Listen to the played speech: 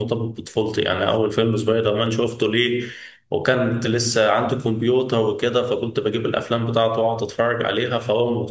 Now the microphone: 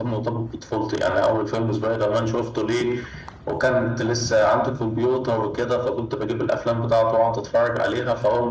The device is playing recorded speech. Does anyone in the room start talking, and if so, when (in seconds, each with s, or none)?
none